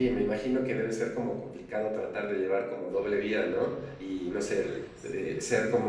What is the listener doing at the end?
listening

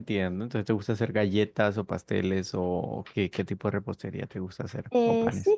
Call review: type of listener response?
taking over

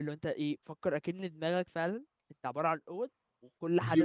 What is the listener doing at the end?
listening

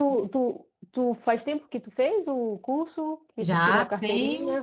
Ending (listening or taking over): taking over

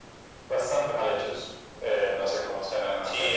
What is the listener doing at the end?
taking over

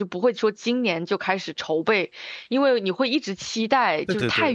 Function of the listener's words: listening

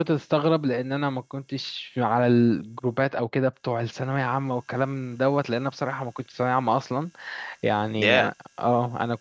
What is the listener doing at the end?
listening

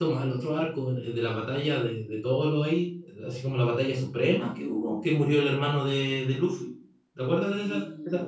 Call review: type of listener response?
taking over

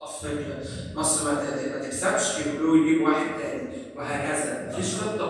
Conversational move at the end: listening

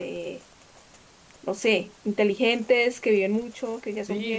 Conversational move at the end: taking over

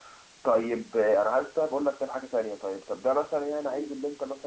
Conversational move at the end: listening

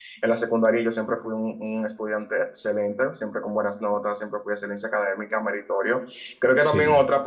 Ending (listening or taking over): listening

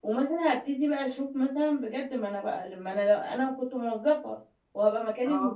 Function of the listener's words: listening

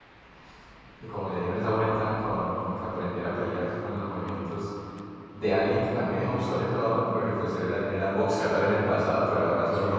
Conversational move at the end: listening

